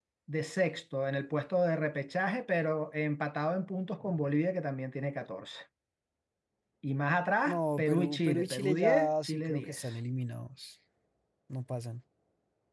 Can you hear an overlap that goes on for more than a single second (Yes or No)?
Yes